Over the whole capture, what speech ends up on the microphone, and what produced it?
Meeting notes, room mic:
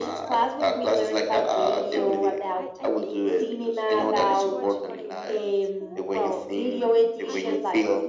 both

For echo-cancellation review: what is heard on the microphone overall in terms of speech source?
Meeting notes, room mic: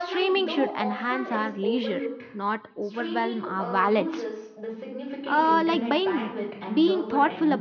both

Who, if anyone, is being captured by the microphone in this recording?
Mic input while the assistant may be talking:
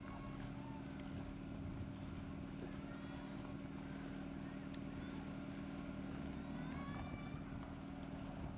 neither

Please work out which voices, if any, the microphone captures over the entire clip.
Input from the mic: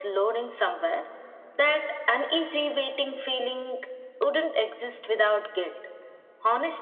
echo only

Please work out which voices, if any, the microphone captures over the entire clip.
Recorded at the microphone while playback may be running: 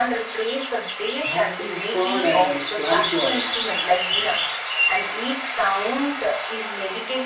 both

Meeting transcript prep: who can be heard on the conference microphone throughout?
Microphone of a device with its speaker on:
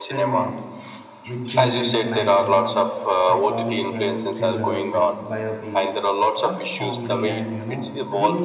both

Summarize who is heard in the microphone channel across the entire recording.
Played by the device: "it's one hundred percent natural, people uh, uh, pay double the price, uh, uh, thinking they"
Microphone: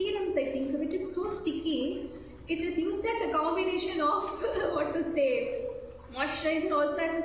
user only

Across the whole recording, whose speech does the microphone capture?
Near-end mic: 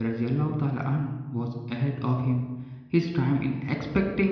user only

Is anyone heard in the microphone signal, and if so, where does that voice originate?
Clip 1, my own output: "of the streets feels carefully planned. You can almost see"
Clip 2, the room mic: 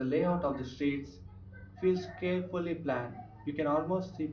echo only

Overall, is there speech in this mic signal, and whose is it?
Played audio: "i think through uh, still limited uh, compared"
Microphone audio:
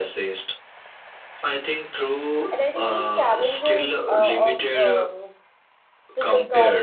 both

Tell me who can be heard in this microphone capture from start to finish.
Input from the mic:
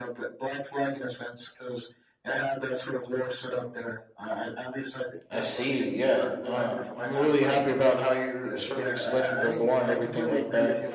both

